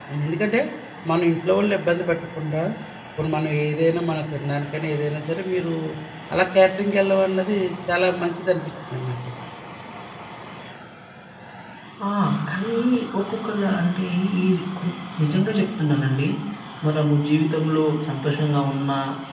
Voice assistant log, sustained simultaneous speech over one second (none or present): none